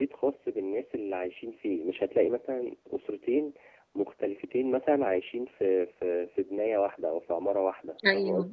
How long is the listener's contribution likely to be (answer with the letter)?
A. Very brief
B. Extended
B